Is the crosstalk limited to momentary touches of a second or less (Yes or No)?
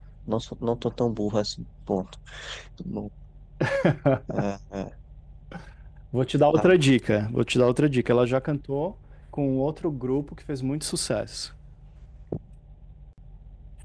Yes